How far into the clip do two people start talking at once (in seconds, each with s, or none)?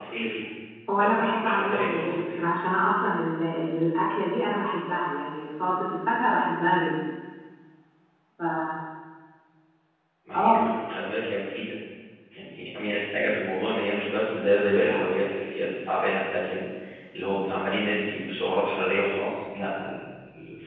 1.0 s